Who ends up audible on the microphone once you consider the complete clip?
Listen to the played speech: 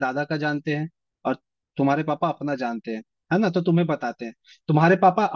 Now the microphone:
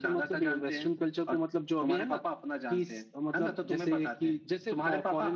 both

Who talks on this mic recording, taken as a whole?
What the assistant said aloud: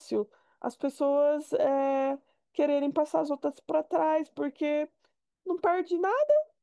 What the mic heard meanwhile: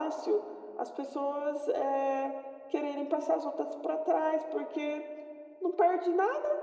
echo only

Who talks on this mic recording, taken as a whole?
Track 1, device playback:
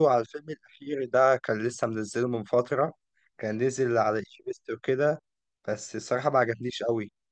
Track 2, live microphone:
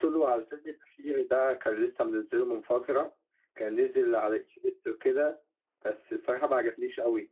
echo only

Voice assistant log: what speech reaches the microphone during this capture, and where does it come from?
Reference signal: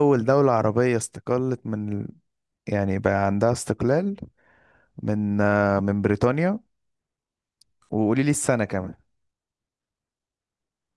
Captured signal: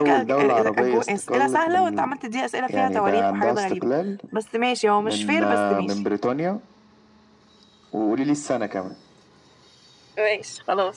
both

